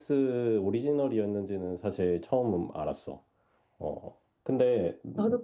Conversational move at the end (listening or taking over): taking over